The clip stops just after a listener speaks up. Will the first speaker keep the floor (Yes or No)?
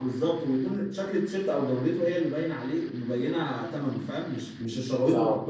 No